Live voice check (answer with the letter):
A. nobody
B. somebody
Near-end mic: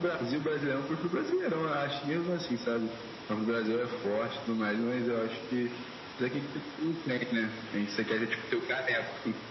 A